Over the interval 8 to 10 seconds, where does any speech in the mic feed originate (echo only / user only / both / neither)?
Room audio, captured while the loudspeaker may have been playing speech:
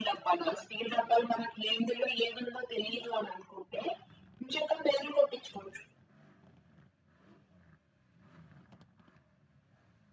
neither